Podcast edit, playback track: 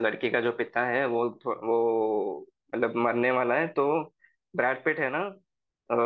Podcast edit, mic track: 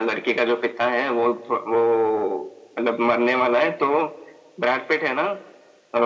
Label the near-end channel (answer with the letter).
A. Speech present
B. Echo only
B